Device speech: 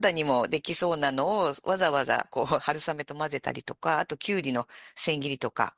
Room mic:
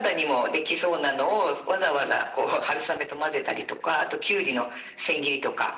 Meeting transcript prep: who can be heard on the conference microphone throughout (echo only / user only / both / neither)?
echo only